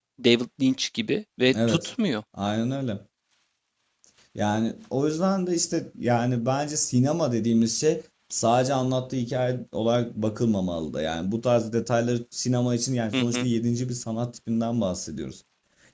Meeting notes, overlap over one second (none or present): none